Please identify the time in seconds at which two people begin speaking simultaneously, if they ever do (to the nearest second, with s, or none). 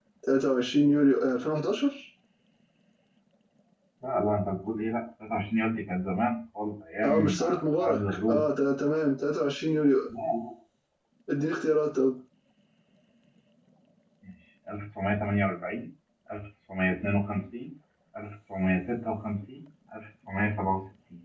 7 s